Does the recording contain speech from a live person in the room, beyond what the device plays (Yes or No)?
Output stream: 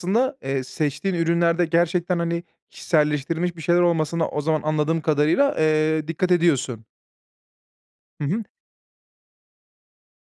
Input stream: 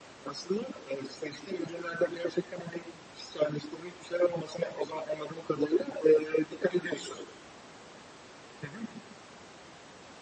No